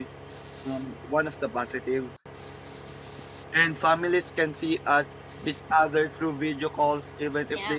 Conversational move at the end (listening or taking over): listening